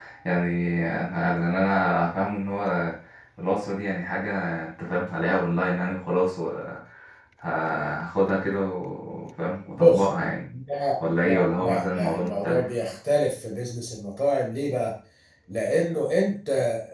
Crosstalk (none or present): present